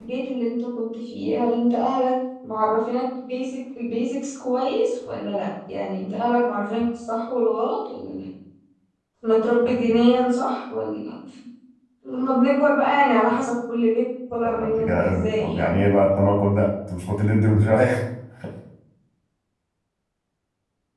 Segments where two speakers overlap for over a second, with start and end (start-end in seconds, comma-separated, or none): 14.4-15.8